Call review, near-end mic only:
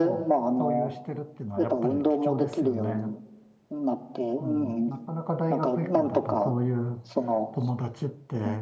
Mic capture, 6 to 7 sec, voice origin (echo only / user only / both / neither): both